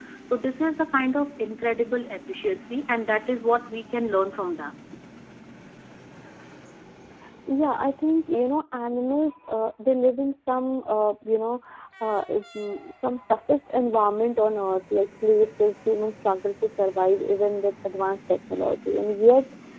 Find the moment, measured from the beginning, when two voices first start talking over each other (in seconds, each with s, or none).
none